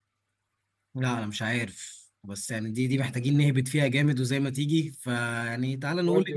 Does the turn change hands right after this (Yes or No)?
No